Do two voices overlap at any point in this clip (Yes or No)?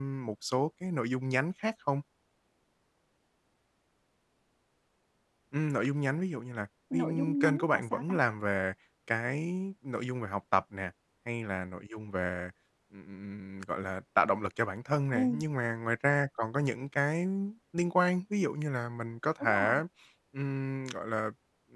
Yes